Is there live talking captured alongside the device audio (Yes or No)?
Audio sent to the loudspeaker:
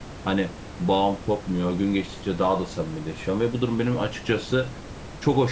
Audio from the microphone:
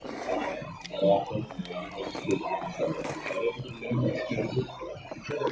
No